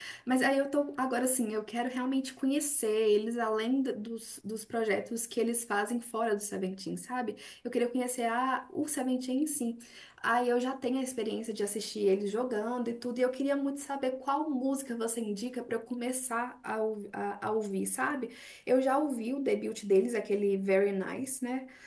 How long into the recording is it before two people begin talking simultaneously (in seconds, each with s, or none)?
none